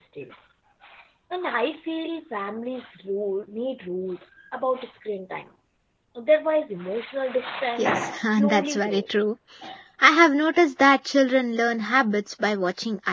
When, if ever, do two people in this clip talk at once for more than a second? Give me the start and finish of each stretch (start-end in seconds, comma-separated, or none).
7.8-9.3